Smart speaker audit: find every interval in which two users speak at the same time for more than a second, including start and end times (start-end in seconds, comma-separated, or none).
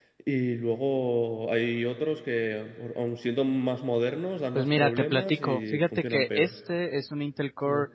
4.5-6.5